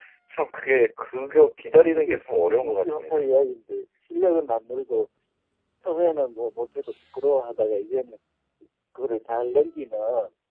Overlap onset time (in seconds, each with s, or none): 1.8 s